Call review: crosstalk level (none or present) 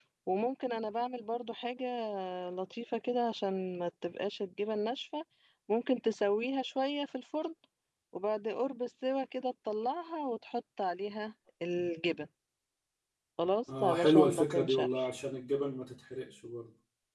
present